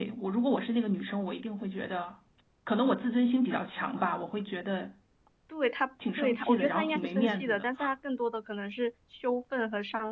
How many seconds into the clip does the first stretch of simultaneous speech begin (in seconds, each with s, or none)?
6.2 s